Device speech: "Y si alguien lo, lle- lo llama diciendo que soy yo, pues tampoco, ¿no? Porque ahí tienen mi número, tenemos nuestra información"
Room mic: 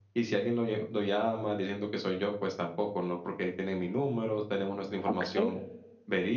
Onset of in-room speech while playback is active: 5.0 s

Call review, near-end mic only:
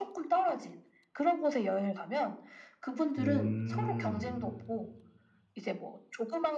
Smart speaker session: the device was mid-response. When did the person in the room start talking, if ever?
3.2 s

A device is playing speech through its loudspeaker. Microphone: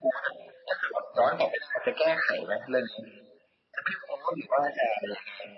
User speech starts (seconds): none

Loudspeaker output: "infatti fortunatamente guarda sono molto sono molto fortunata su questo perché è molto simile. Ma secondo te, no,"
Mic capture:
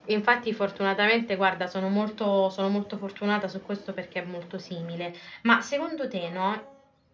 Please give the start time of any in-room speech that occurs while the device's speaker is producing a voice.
none

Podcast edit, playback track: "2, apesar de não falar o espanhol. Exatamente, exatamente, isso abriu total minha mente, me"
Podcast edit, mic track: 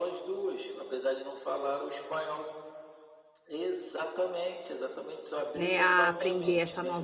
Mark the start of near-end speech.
5.5 s

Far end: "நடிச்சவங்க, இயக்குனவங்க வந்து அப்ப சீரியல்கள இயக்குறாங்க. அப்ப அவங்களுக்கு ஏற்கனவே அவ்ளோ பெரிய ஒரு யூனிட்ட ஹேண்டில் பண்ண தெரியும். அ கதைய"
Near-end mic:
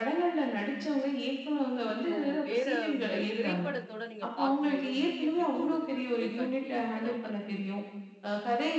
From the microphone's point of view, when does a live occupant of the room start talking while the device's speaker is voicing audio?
1.9 s

